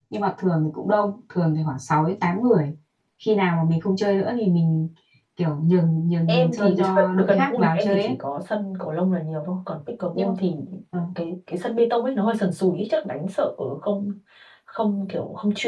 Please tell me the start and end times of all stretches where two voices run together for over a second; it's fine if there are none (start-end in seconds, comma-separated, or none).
6.3-8.2